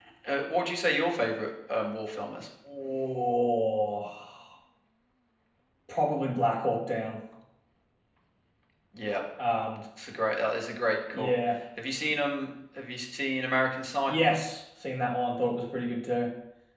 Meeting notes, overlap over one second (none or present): none